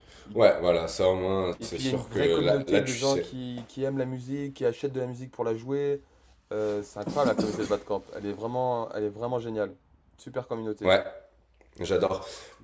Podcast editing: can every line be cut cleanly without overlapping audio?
No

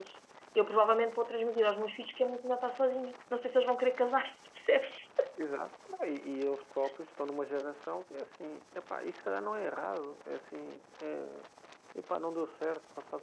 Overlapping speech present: No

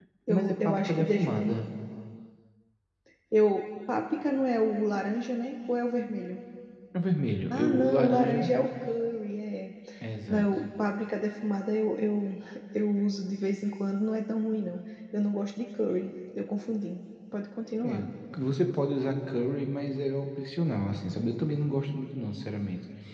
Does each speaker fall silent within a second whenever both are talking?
No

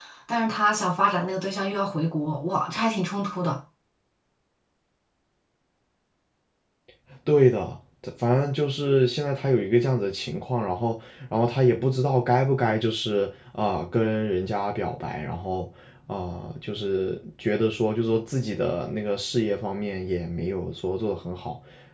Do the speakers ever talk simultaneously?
No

